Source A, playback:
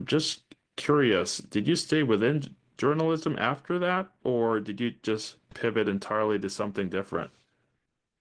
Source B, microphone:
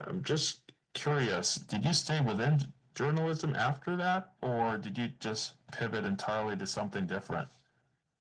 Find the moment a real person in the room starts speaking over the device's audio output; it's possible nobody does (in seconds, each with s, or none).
none